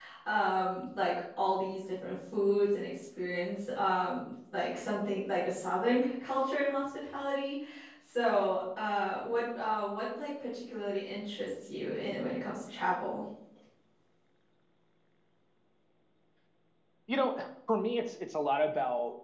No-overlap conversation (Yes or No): Yes